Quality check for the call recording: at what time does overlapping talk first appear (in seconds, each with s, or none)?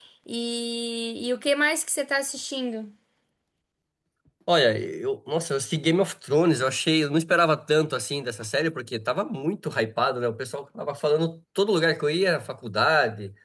none